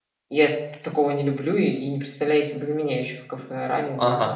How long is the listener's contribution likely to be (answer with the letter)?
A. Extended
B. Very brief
A